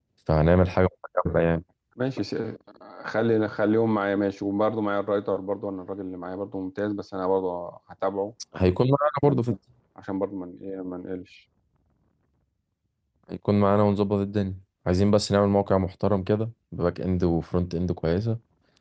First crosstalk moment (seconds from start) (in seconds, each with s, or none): none